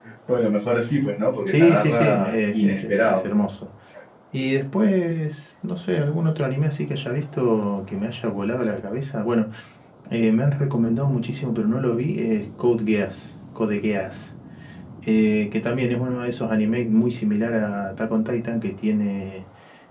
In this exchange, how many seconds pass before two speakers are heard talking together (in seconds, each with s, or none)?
1.5 s